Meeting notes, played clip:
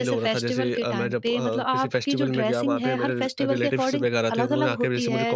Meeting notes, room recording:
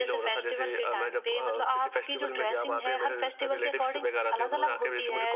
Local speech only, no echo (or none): none